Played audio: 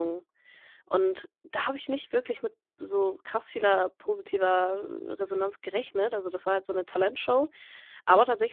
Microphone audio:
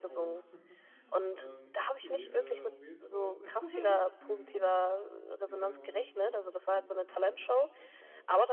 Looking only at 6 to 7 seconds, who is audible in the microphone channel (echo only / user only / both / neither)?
both